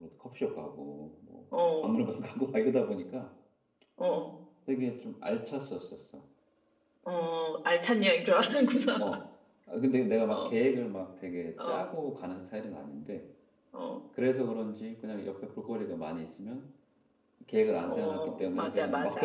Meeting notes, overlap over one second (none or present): present